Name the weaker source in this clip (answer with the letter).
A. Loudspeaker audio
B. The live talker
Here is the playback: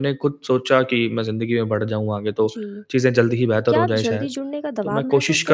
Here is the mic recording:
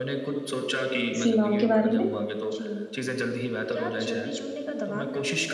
A